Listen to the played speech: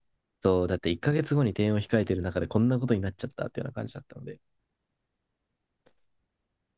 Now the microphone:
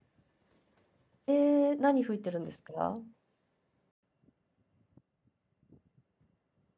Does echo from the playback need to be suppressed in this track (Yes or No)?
No